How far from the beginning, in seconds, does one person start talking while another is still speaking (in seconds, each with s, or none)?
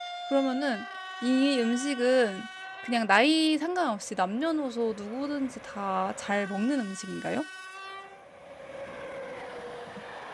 none